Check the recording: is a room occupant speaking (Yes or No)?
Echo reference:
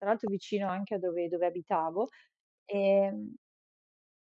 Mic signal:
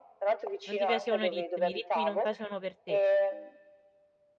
Yes